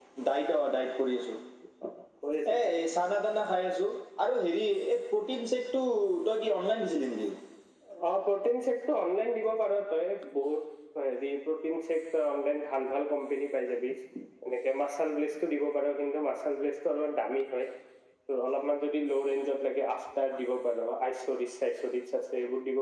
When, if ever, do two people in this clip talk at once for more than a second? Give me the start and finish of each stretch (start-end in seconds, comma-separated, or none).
none